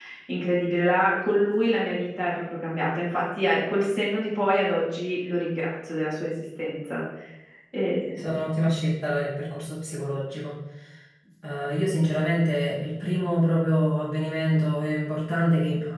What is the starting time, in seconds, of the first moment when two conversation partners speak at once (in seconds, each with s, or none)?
none